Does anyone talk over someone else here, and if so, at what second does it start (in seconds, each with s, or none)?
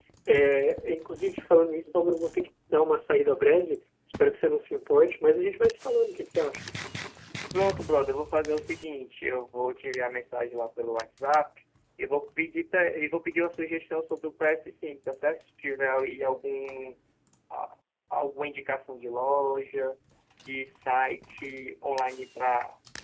none